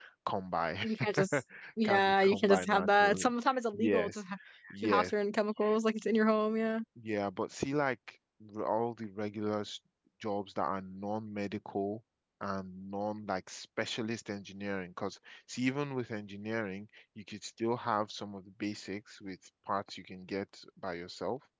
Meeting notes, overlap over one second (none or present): present